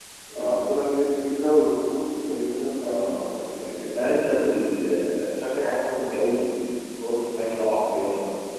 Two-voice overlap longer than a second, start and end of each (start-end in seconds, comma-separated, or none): none